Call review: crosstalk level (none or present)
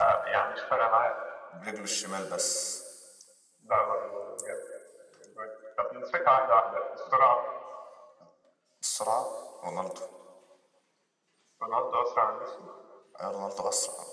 none